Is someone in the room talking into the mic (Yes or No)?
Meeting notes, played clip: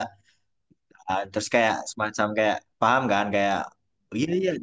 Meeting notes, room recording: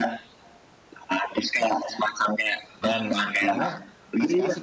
Yes